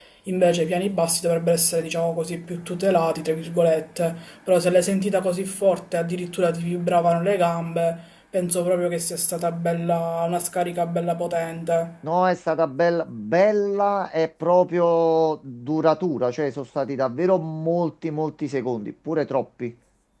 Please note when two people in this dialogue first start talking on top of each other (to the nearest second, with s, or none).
none